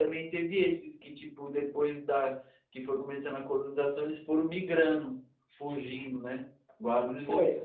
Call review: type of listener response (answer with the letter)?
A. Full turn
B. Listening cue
A